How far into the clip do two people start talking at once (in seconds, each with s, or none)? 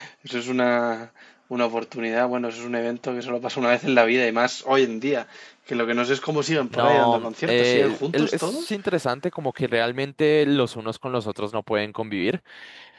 6.7 s